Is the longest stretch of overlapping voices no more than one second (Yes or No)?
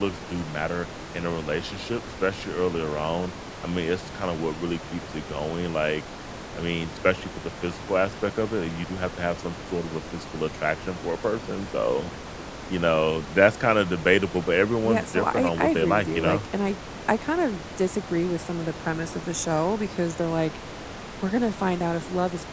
No